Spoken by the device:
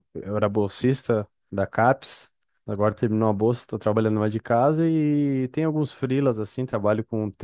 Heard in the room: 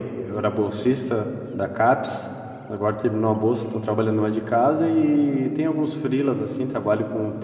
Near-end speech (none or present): none